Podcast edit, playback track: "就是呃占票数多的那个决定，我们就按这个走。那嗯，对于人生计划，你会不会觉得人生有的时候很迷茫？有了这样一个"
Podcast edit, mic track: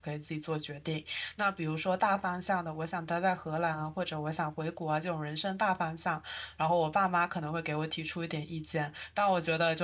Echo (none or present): none